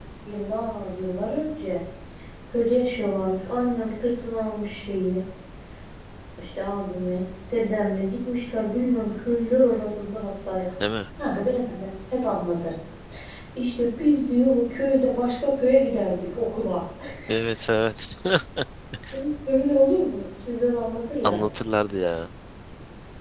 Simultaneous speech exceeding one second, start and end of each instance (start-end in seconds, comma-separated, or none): none